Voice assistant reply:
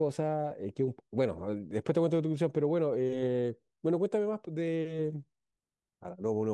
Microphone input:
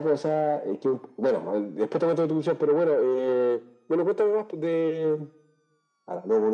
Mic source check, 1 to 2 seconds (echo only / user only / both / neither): echo only